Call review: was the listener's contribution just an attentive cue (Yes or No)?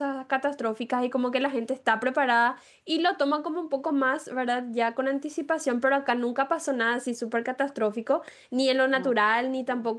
Yes